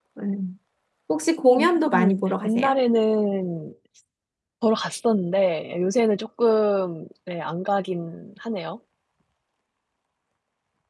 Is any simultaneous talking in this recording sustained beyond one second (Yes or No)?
Yes